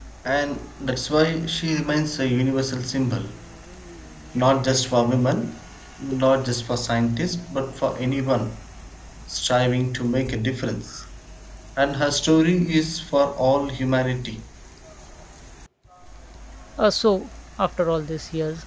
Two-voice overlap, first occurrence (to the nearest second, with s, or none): none